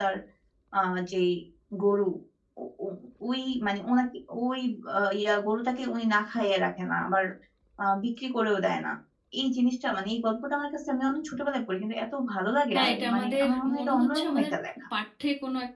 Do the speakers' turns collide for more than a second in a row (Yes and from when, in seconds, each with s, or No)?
Yes, from 12.7 s